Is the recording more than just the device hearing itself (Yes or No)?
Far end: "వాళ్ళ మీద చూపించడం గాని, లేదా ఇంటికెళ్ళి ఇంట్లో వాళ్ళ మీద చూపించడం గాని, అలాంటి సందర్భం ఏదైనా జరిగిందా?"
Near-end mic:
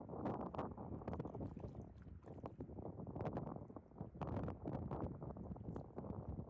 No